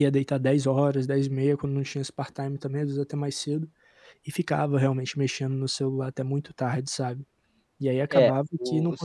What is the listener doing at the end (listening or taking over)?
taking over